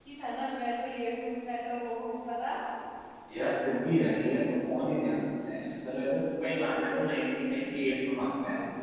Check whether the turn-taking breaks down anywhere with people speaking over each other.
No

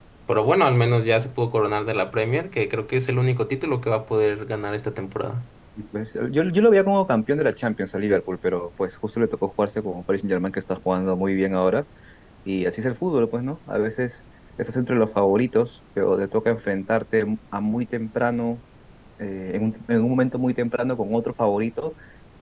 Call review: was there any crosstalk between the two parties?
No

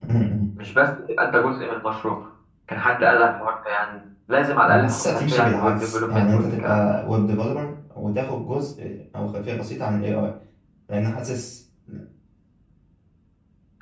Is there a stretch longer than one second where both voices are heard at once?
Yes, from 4.6 s

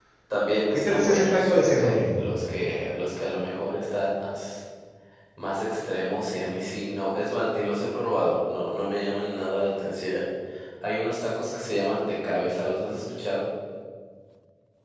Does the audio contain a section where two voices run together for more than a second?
Yes, from 0.7 s

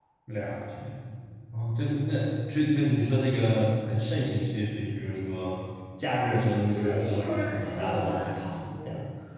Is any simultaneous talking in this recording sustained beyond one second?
Yes, from 6.7 s

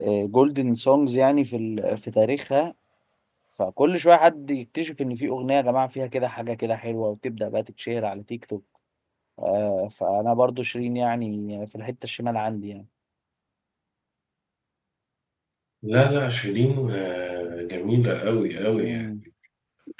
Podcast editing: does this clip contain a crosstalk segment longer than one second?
No

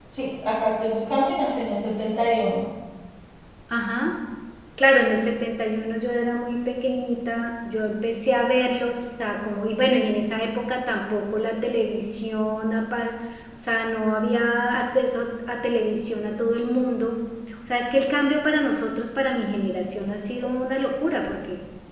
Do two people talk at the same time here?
No

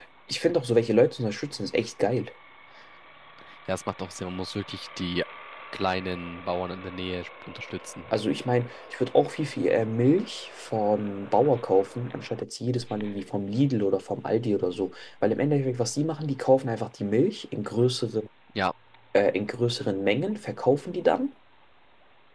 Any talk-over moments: No

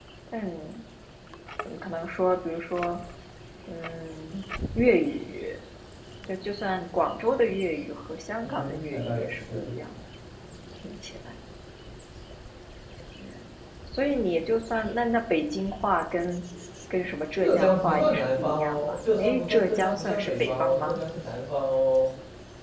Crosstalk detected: Yes, from 8.4 s

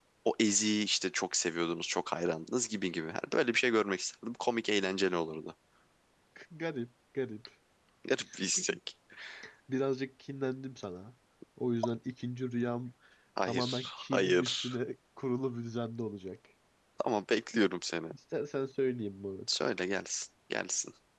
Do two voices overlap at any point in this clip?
Yes, from 13.4 s

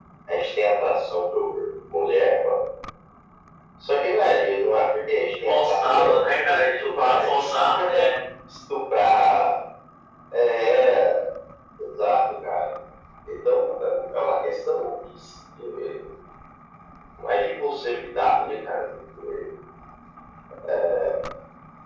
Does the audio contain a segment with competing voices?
Yes, from 5.4 s

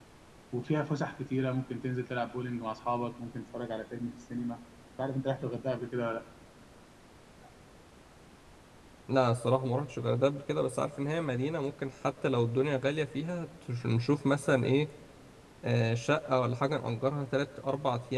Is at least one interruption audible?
No

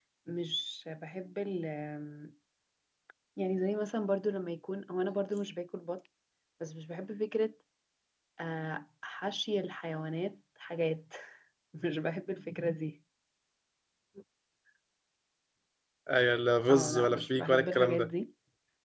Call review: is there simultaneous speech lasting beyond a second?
Yes, from 16.7 s

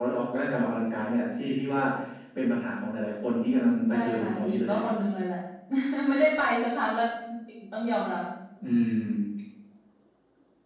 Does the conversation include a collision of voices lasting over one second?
Yes, from 3.4 s

